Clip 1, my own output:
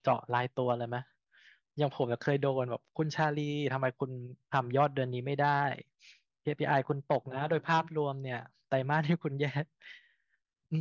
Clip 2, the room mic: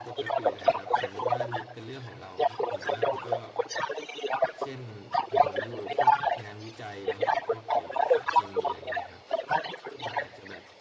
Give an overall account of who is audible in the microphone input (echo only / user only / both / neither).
both